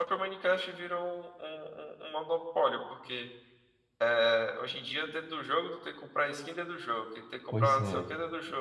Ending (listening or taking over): listening